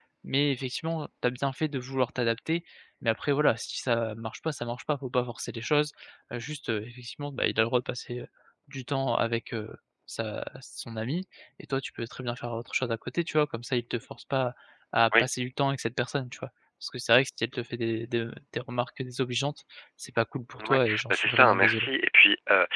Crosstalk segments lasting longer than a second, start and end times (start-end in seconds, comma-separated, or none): 20.7-21.9